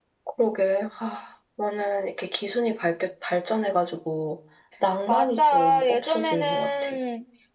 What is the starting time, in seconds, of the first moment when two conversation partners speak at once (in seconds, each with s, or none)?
5.1 s